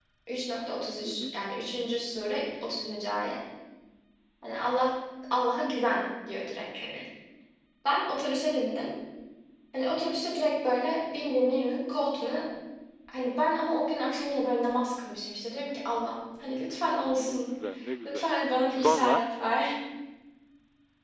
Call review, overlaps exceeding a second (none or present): none